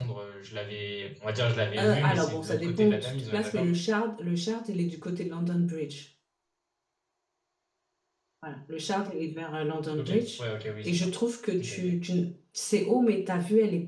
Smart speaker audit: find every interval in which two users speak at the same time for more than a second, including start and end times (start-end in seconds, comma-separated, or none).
1.8-3.7